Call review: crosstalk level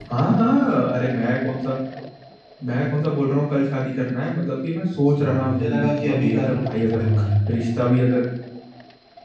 present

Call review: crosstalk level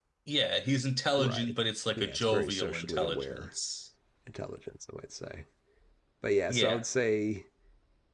present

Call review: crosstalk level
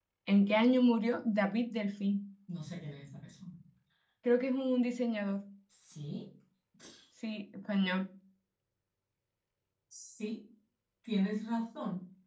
none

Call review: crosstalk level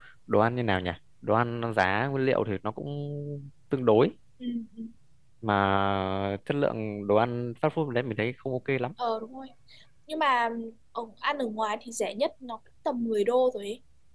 none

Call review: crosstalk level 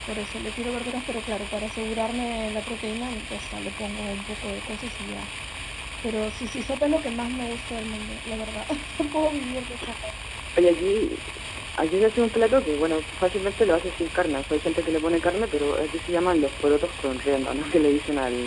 none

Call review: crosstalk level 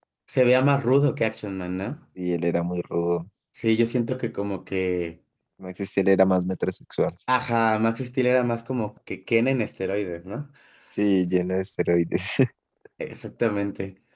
none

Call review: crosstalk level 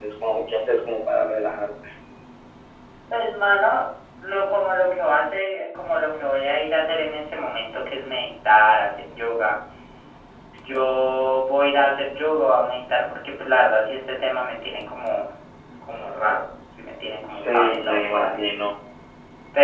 present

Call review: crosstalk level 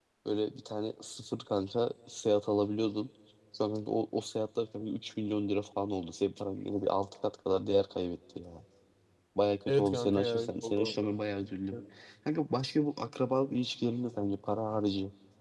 present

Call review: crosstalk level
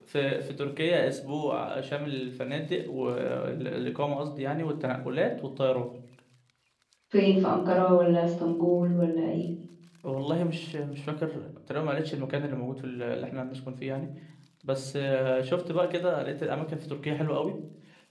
none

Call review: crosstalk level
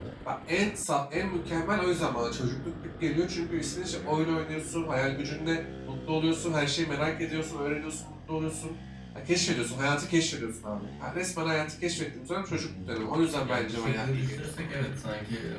present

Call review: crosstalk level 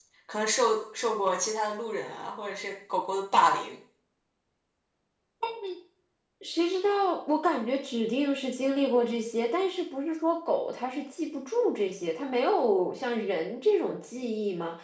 none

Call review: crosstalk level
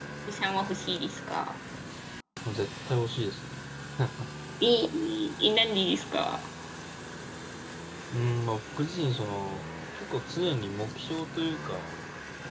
none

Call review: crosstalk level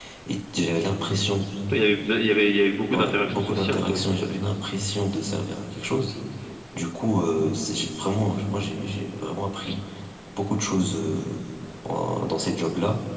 present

